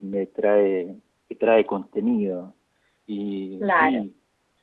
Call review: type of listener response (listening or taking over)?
listening